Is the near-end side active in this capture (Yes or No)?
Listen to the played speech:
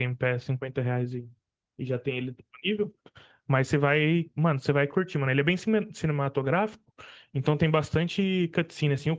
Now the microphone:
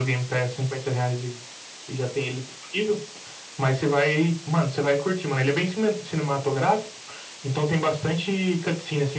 No